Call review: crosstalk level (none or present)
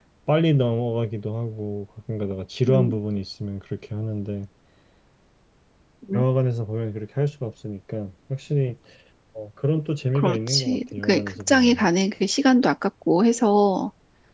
present